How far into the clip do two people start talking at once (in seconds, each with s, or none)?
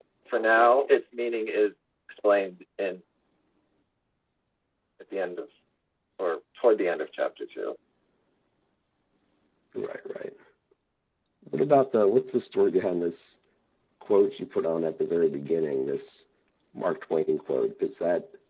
none